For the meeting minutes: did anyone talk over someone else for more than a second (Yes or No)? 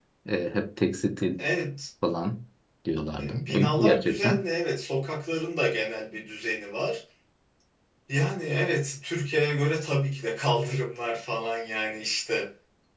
Yes